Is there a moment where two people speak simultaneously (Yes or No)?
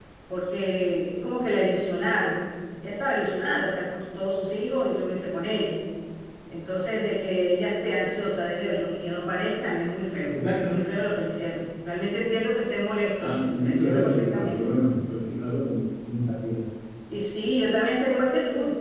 Yes